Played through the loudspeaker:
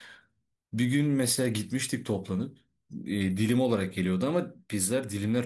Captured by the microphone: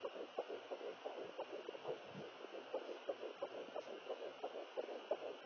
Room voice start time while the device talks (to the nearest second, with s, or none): none